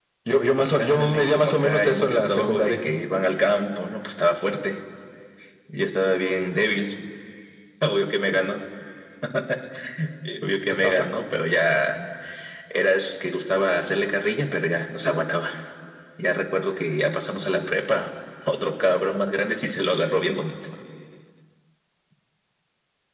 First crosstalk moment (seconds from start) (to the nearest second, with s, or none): 1 s